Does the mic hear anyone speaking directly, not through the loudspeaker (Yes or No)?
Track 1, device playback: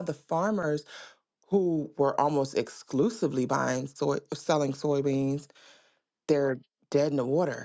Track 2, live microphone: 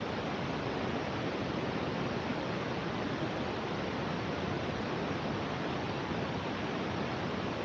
No